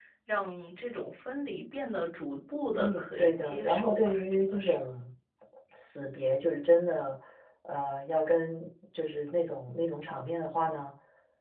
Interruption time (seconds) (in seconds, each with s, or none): 2.8 s